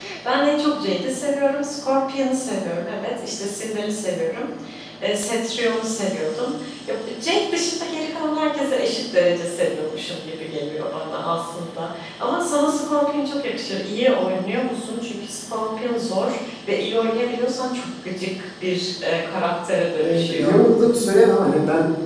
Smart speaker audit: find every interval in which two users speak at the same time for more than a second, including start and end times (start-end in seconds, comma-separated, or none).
none